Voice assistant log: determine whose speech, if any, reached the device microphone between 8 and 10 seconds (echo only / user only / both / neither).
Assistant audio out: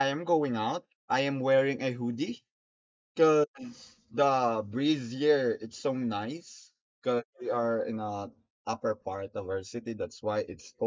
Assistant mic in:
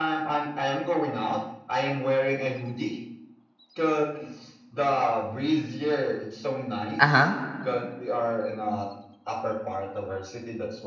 echo only